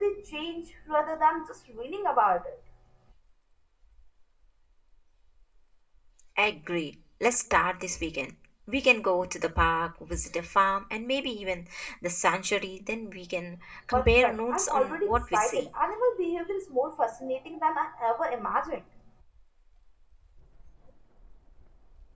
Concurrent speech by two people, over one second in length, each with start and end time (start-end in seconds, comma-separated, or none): 13.9-15.7